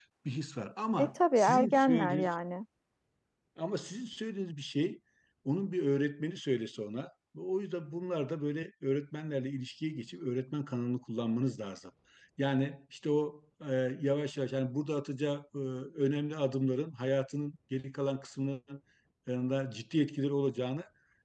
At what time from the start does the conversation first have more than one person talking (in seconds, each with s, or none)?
1.0 s